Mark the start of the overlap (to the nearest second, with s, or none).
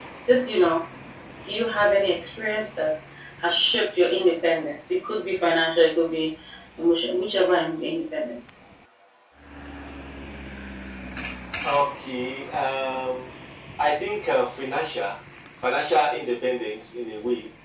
none